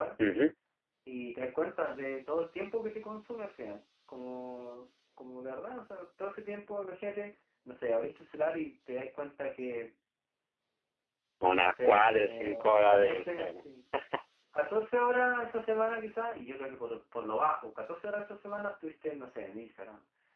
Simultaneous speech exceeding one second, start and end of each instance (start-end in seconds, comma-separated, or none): 11.5-13.6